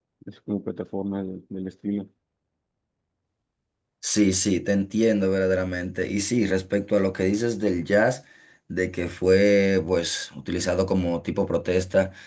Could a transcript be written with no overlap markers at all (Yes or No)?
Yes